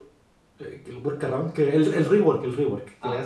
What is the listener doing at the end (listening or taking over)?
listening